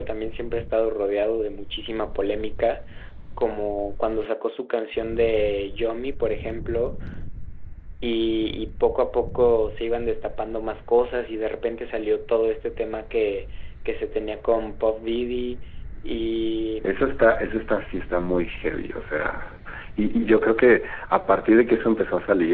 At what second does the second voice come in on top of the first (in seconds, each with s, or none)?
none